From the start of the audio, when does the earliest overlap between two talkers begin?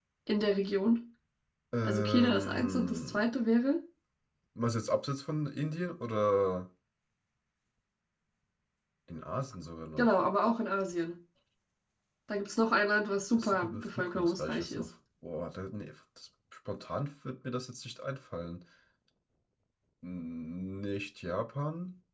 1.8 s

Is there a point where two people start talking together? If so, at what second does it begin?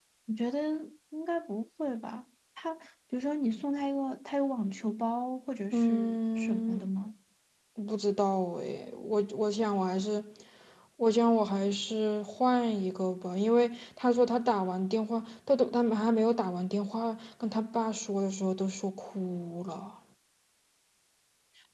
5.7 s

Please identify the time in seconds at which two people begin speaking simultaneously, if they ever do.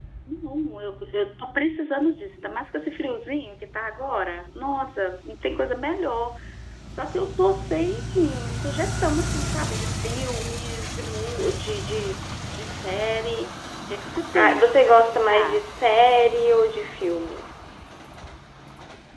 14.3 s

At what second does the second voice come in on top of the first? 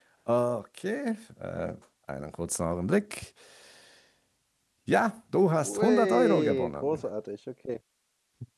5.6 s

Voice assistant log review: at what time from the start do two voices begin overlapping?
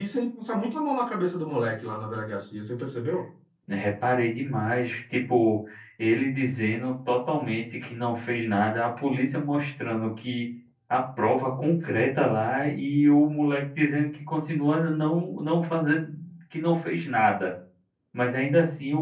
none

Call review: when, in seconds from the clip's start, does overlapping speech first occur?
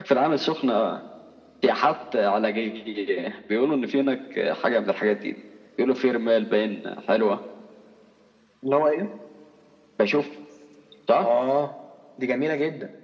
none

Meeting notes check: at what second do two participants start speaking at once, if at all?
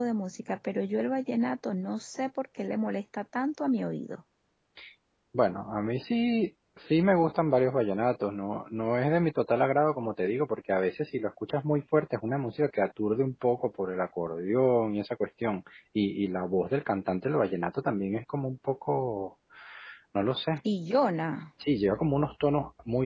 none

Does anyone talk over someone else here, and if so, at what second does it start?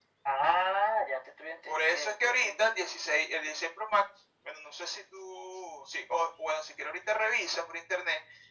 1.7 s

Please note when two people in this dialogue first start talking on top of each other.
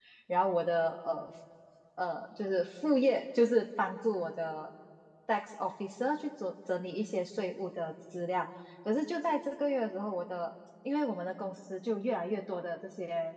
none

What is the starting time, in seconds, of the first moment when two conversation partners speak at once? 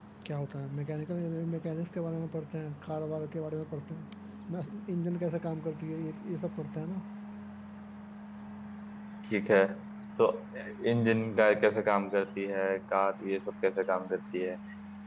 none

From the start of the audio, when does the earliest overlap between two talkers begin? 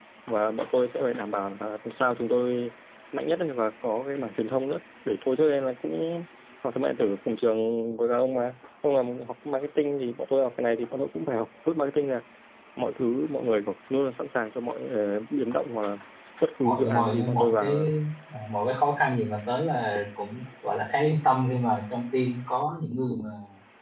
16.6 s

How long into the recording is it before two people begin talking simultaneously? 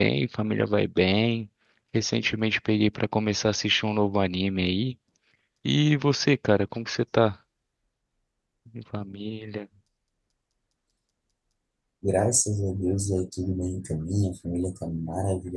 none

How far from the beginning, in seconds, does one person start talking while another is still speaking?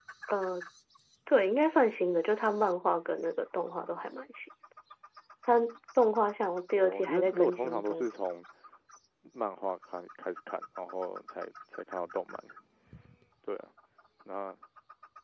6.7 s

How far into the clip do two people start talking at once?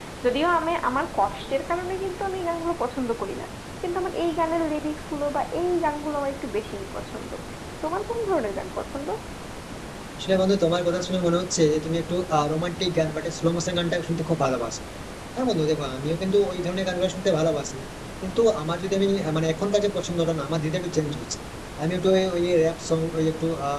none

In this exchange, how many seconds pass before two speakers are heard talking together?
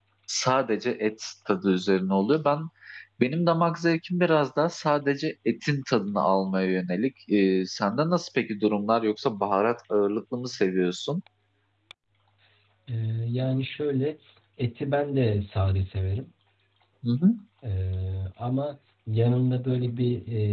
none

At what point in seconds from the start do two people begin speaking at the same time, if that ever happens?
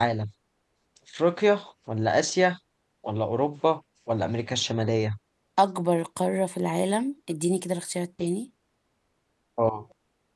none

